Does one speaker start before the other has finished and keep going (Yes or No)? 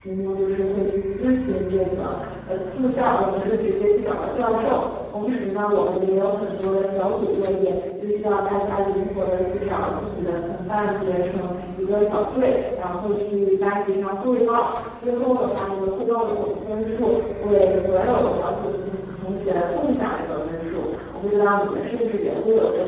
No